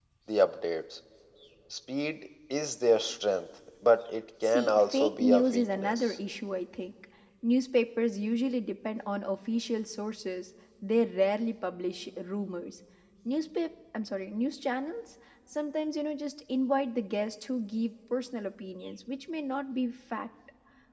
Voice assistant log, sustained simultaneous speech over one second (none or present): present